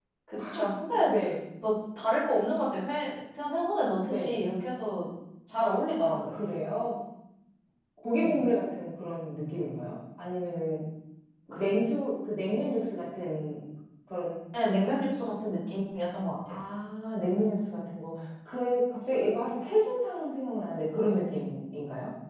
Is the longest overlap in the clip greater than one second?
No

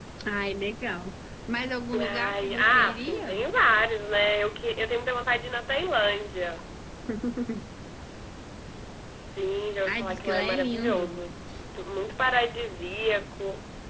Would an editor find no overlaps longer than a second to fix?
No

